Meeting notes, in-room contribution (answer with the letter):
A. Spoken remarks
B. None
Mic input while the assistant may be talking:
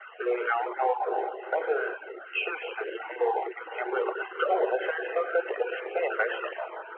B